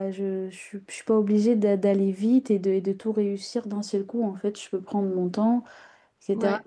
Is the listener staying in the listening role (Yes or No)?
Yes